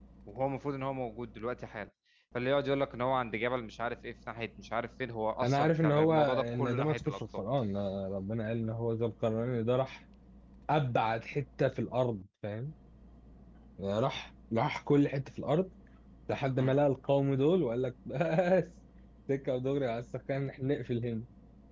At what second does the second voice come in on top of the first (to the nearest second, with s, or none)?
5 s